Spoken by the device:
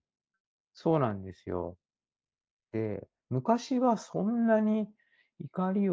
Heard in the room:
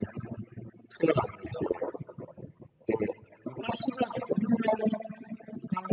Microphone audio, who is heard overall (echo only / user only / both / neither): echo only